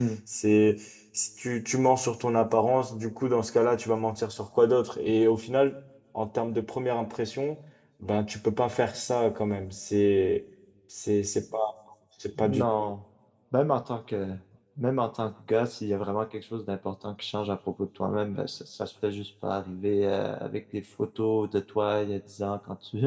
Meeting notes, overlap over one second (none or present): none